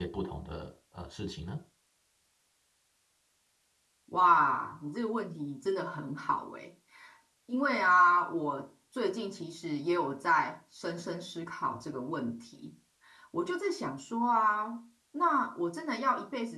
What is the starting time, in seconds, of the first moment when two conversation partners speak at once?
none

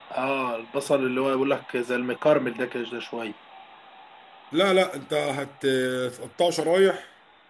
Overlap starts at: none

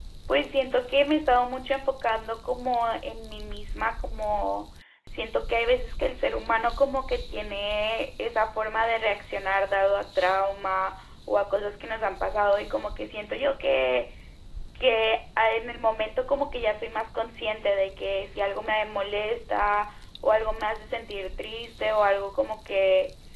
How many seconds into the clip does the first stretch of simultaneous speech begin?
none

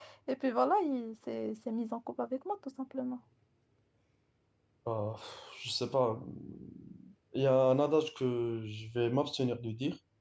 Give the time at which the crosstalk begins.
none

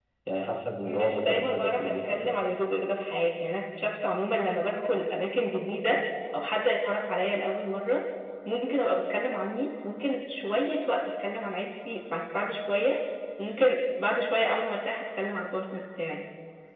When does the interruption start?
0.8 s

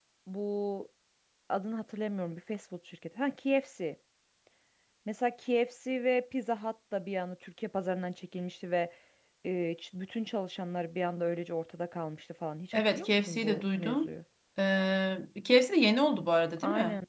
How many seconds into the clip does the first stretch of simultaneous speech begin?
12.7 s

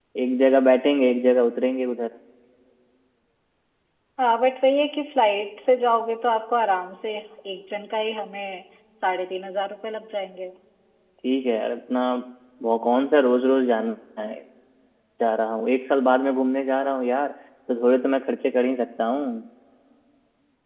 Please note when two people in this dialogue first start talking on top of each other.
none

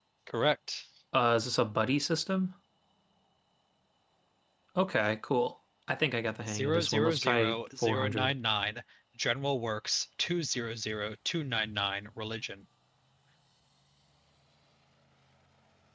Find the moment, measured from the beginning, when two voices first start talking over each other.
6.5 s

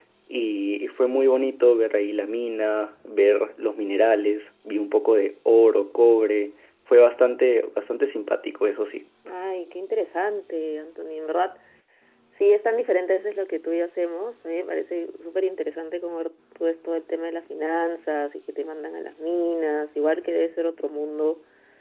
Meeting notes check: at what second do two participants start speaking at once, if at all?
none

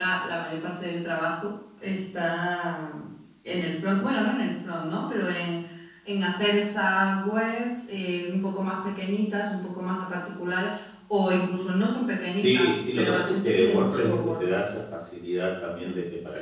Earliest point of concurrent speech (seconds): 12.4 s

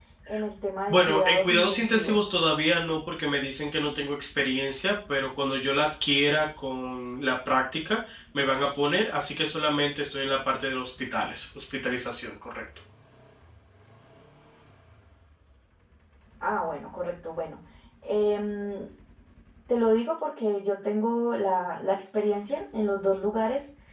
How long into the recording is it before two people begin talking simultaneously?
0.9 s

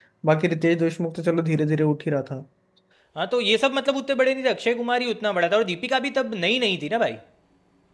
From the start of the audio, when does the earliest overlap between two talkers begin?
none

